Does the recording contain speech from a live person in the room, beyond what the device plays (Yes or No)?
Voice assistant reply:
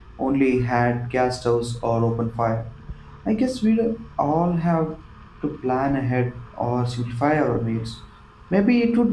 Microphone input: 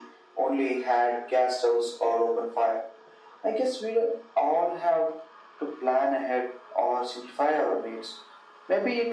No